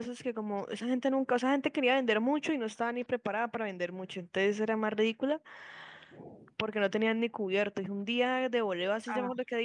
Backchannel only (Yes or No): Yes